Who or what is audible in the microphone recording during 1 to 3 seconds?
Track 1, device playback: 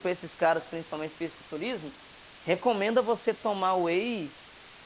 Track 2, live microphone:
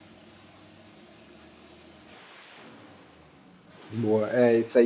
neither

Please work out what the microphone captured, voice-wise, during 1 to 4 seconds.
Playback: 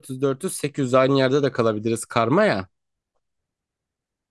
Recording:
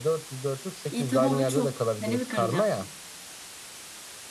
both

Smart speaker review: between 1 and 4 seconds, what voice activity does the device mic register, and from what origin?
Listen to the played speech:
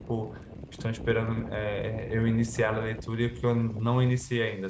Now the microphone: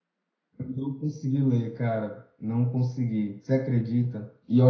user only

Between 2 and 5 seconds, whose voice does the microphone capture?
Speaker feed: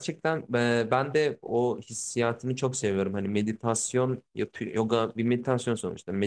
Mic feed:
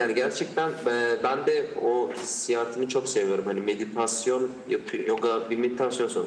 echo only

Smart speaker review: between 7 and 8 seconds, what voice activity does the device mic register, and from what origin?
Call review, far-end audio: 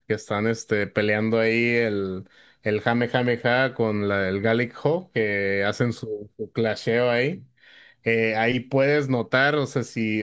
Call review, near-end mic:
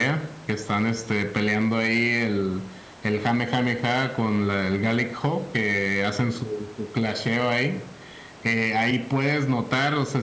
echo only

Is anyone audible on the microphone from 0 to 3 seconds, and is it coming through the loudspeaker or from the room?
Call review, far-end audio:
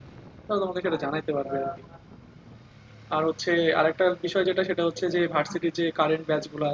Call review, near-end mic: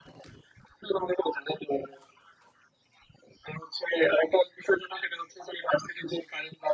echo only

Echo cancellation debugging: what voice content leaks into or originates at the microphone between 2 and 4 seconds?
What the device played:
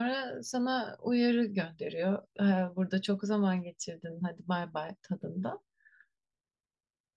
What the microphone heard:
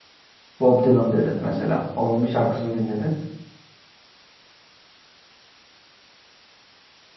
user only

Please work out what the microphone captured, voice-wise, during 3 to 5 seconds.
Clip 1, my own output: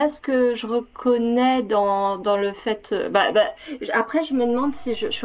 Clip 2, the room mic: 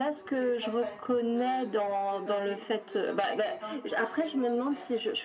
both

